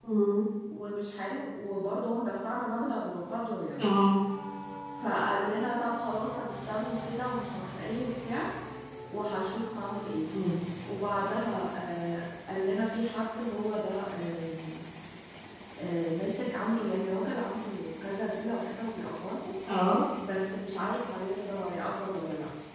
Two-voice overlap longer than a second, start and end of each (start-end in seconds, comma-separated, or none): none